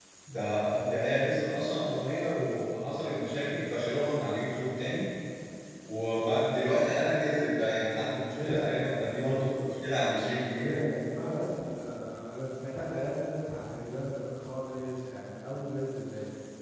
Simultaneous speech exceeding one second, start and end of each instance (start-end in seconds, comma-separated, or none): none